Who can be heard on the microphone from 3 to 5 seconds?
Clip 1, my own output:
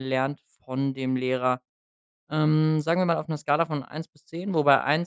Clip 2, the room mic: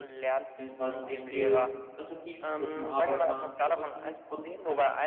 both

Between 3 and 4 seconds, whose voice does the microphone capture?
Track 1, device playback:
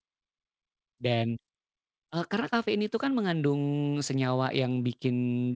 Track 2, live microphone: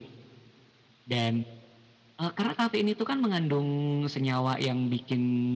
echo only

